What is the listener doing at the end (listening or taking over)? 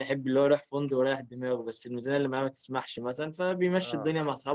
listening